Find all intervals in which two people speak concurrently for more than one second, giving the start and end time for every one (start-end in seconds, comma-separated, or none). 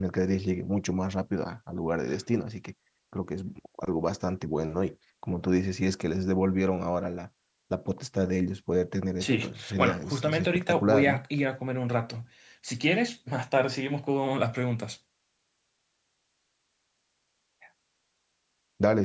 9.2-11.2